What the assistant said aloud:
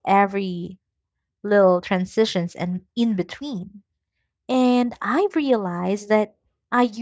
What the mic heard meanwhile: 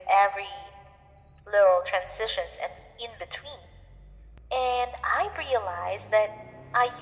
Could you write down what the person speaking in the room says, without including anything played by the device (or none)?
none